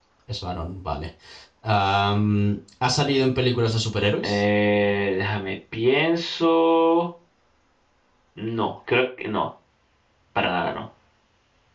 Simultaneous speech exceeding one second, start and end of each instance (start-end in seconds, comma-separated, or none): none